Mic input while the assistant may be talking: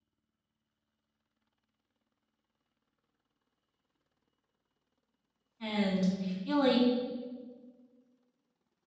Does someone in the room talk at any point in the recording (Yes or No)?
Yes